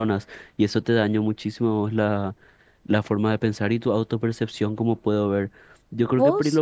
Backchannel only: Yes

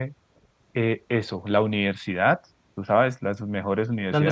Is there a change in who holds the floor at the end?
No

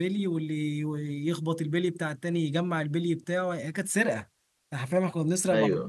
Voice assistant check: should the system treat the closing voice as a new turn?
No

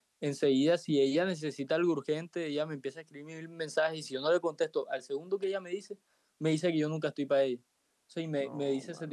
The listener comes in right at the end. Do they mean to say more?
No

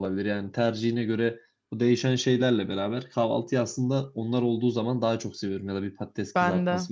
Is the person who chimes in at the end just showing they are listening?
Yes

